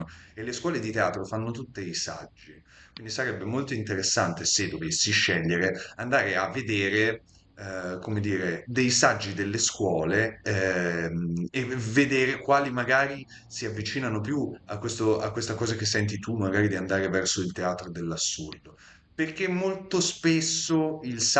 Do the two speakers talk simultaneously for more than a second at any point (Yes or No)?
No